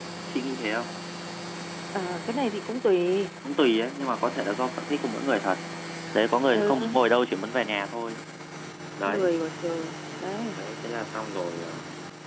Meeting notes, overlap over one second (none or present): none